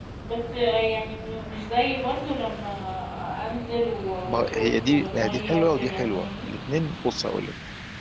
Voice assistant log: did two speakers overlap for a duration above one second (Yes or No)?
Yes